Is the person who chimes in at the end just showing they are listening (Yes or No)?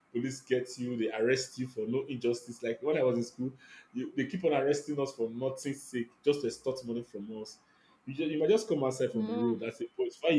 Yes